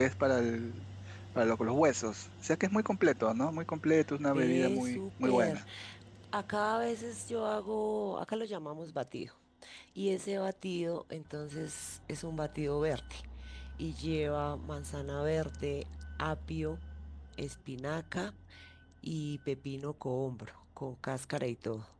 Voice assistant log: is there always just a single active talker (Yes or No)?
No